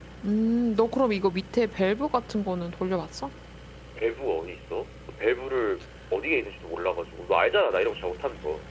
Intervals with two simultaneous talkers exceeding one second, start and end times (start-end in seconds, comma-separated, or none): none